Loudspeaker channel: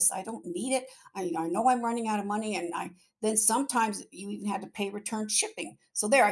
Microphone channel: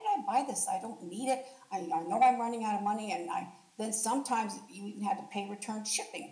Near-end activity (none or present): none